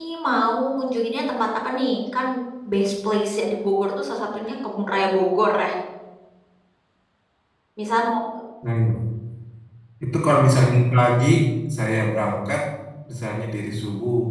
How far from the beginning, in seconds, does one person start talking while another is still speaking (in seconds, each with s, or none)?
none